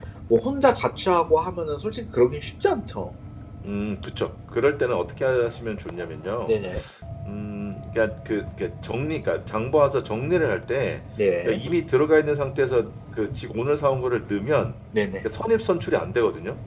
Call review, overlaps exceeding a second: none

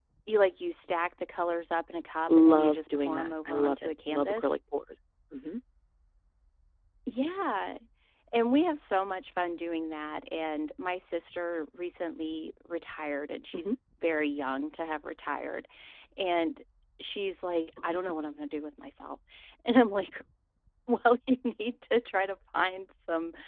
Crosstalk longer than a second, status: present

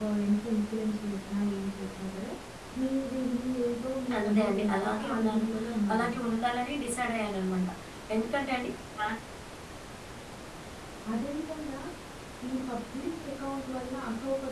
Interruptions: present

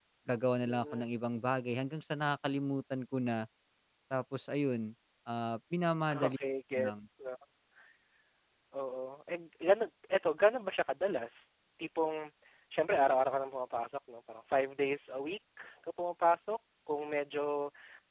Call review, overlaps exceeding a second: none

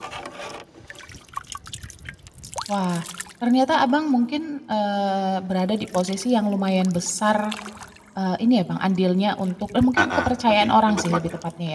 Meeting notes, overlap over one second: present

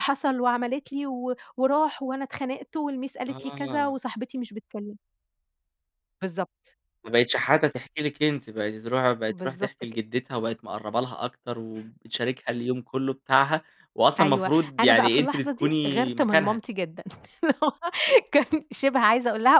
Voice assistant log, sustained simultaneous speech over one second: present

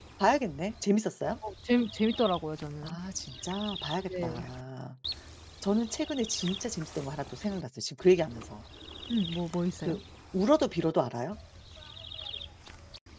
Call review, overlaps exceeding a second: none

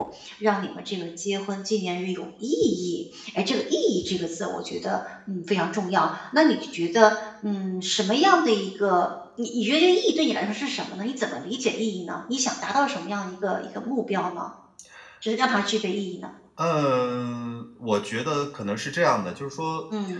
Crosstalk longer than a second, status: none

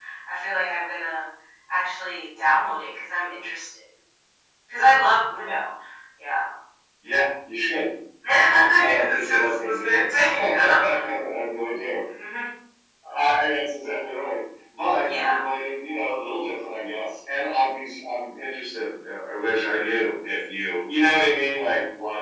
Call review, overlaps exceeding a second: present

